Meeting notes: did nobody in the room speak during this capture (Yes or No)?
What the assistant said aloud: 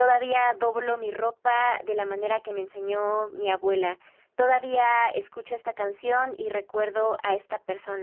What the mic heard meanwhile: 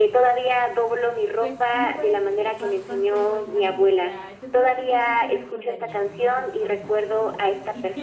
No